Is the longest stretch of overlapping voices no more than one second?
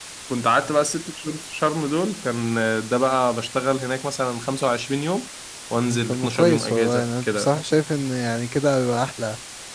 No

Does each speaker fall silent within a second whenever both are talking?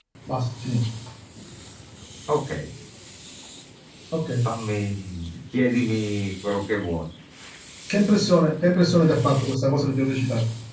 Yes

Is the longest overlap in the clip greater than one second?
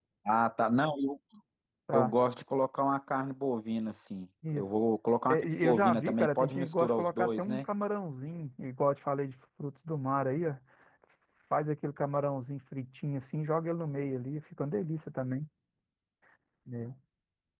Yes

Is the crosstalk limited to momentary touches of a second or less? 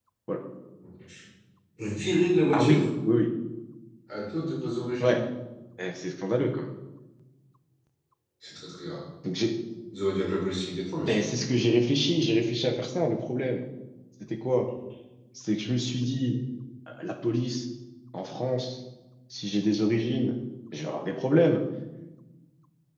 Yes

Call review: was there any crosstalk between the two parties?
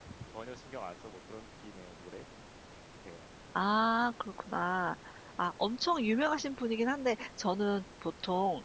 No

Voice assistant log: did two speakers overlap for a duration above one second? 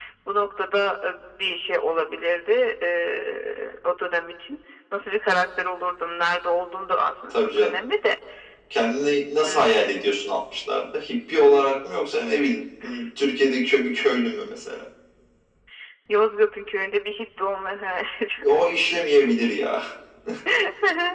No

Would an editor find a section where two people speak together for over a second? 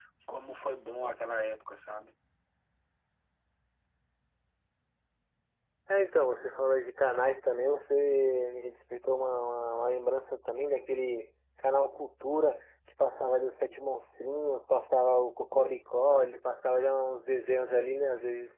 No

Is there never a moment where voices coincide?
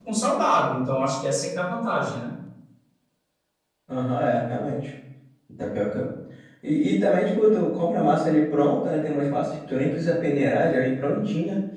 Yes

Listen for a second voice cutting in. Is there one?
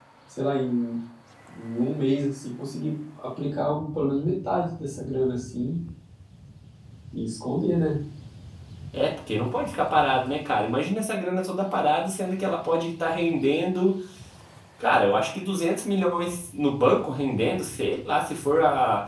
No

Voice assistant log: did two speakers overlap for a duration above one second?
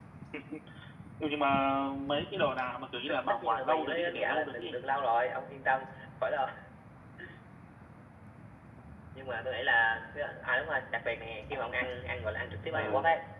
Yes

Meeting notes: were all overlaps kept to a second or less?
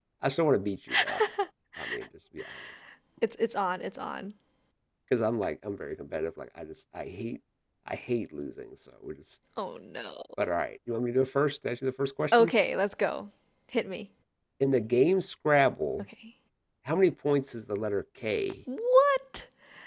Yes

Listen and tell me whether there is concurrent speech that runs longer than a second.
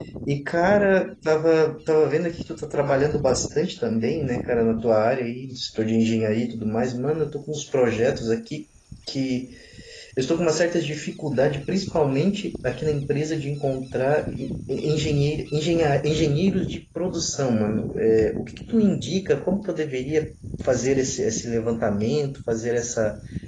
No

